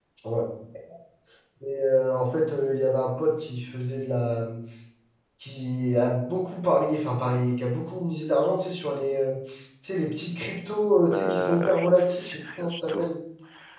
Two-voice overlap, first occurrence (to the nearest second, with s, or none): 11 s